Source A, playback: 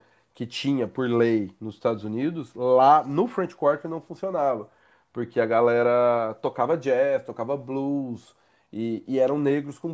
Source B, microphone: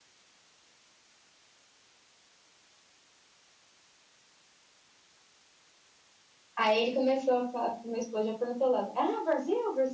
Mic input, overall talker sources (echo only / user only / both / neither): user only